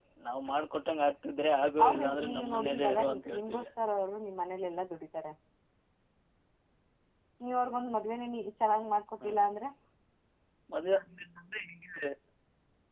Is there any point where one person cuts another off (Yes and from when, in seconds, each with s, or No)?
Yes, from 1.8 s